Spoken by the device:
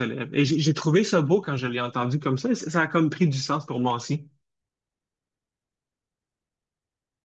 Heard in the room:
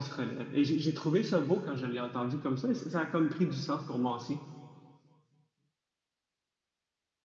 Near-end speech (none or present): none